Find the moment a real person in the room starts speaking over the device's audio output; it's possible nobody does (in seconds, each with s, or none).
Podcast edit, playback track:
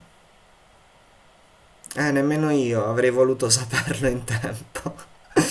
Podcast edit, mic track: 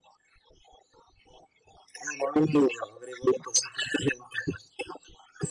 none